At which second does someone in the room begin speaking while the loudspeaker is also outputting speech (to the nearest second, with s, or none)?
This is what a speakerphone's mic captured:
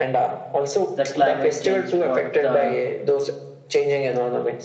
1 s